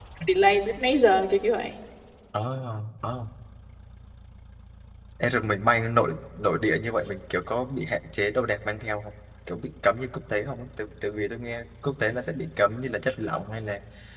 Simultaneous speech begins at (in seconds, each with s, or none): none